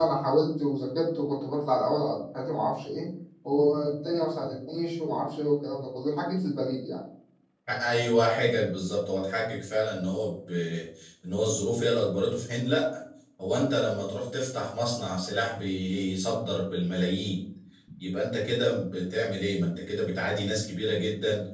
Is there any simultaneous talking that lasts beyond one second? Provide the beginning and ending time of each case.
none

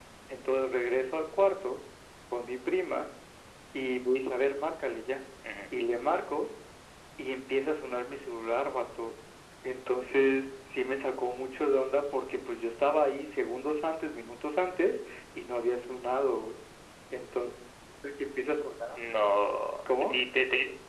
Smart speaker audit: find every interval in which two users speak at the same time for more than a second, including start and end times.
none

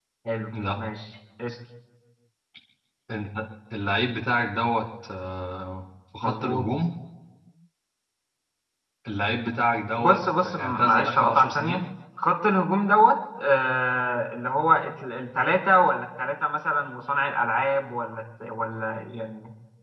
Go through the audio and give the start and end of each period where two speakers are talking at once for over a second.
10.0-11.8

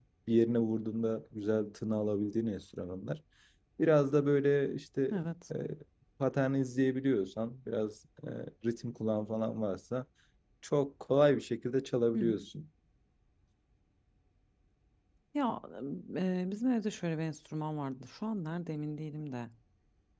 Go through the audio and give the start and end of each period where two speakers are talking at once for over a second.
none

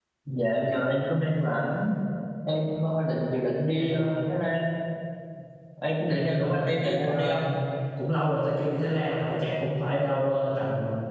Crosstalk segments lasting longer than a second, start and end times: 6.1-7.4

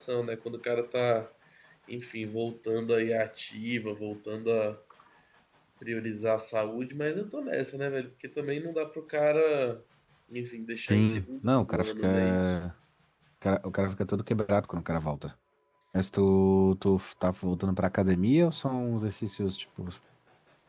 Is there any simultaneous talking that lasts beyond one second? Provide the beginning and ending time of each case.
10.9-12.6

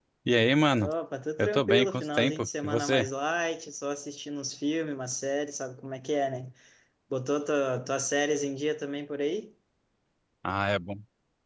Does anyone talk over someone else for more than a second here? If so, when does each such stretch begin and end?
1.4-3.1

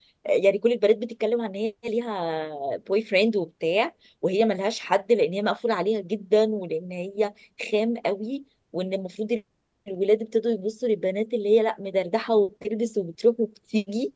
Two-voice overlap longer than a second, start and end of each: none

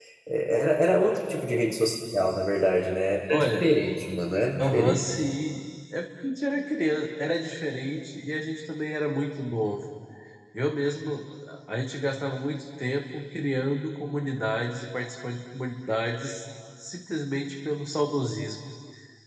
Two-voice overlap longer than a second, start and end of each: none

